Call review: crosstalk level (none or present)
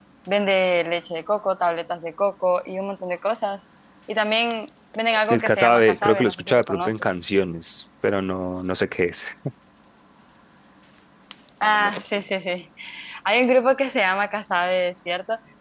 present